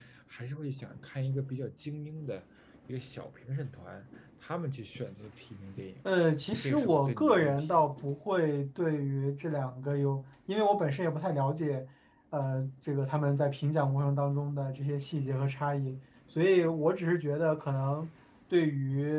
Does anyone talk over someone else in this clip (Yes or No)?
Yes